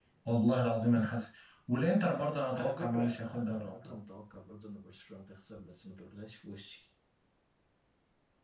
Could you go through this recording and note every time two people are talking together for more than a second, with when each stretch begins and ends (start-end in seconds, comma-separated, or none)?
2.5-3.9